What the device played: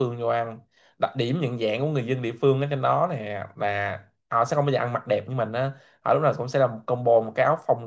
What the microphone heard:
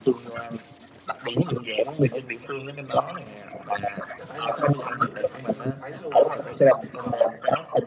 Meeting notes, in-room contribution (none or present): present